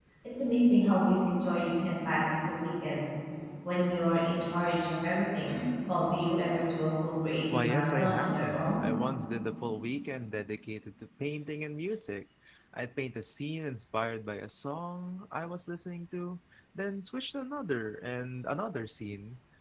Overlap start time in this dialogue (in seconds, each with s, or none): 7.5 s